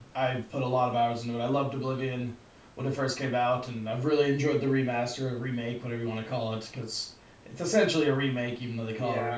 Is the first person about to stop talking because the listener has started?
Yes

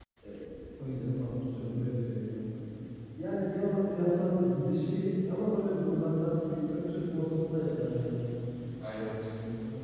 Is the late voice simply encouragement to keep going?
Yes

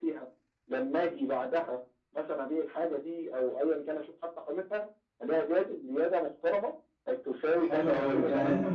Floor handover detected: Yes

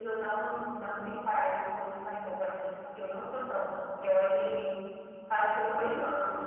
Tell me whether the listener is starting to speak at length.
No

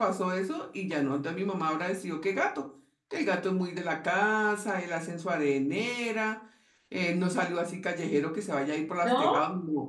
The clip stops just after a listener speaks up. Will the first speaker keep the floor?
Yes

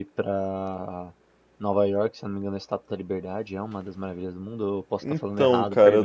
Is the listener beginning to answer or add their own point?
Yes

